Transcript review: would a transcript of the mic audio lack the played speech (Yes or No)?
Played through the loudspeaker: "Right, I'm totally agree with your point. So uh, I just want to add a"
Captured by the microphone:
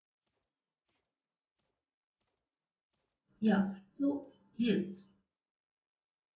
Yes